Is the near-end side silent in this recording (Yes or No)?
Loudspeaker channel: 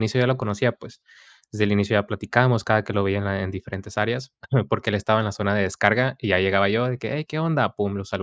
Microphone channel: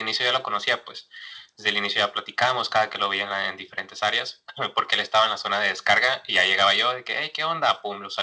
Yes